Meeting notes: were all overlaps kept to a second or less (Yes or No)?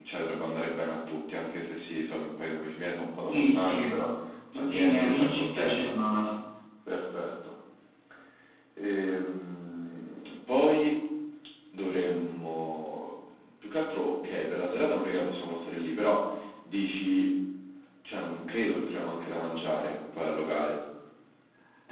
No